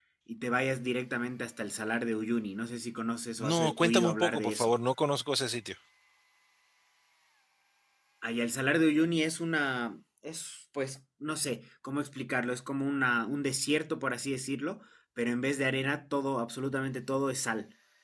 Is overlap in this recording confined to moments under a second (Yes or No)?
No